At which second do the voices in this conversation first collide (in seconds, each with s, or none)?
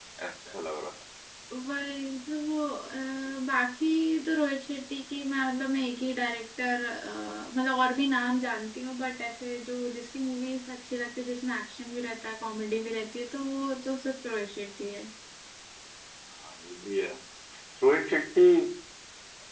none